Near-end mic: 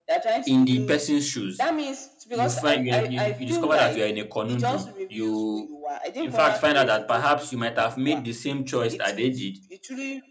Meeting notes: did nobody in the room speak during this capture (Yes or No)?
No